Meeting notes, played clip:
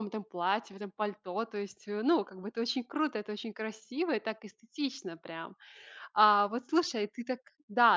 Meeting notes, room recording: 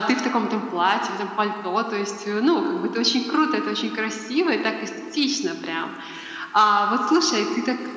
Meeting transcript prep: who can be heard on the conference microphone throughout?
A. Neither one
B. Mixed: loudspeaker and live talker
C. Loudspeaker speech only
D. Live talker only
C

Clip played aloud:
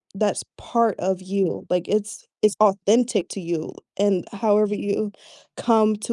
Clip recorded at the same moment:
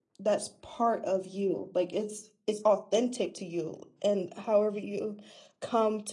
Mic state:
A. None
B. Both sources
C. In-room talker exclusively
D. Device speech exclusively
D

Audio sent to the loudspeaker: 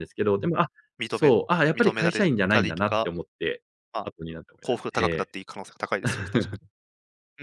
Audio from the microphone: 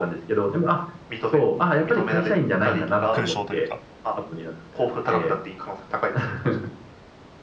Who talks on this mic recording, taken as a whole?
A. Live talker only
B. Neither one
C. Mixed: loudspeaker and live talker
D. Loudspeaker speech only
C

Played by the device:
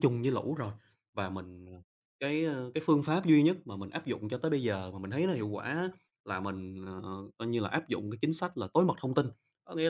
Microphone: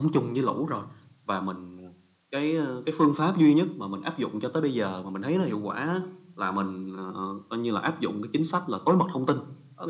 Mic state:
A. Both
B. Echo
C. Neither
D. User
B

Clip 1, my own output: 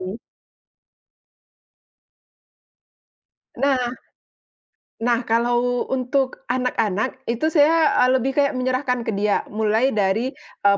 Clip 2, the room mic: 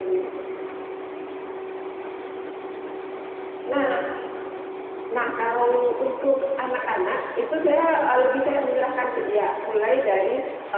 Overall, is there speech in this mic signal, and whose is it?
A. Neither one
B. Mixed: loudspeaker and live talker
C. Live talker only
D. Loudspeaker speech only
D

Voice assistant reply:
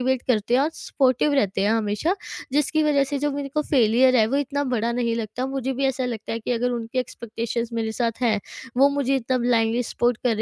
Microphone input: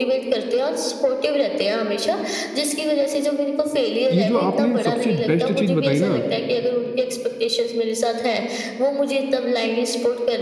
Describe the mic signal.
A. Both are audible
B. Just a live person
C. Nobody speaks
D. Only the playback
A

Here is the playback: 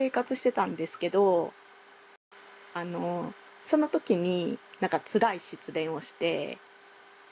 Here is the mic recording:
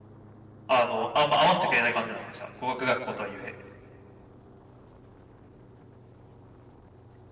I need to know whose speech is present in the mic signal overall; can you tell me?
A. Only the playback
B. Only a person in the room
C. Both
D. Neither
B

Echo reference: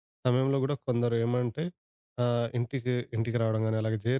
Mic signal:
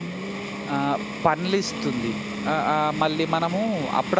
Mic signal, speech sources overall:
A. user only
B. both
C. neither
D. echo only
A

